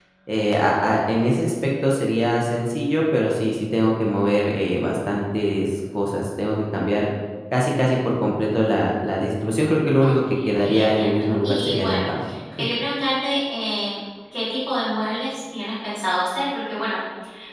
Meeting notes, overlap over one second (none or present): present